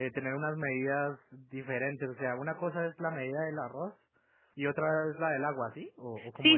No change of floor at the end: No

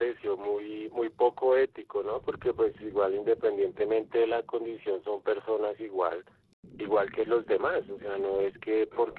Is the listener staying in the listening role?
Yes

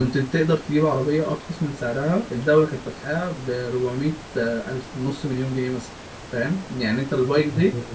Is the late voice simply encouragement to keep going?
No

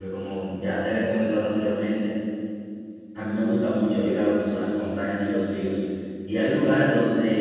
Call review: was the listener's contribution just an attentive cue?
Yes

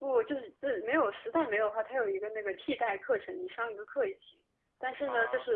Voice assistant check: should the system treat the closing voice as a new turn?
No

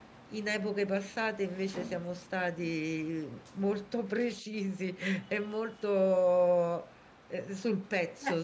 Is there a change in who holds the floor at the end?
Yes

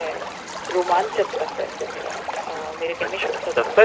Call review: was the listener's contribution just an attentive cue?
No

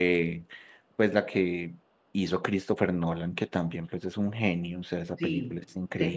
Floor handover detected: Yes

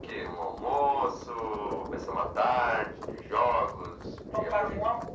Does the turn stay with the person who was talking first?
No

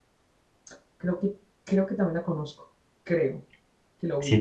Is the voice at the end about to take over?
Yes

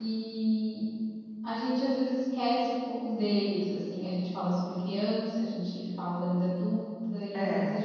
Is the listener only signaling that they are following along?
Yes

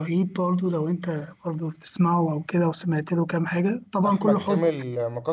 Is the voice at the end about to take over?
Yes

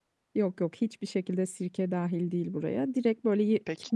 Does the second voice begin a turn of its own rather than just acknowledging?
No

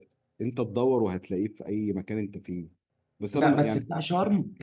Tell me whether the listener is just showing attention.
No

